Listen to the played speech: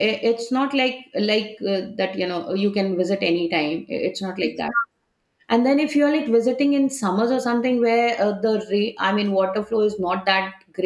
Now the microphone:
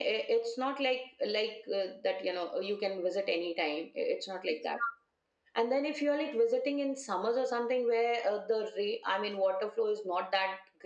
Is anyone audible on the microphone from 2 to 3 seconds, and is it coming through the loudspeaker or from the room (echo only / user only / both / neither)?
echo only